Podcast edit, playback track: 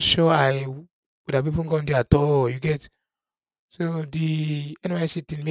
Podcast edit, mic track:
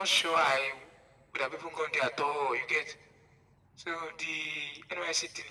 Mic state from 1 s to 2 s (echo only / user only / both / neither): echo only